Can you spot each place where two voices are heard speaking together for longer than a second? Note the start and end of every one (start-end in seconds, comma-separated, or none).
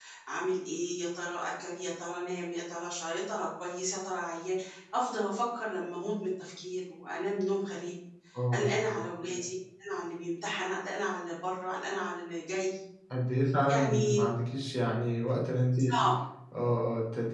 none